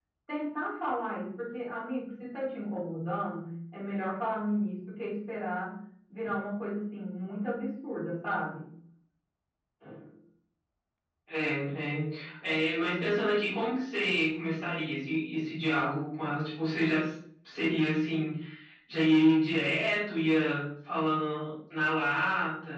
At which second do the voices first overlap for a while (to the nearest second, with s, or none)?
none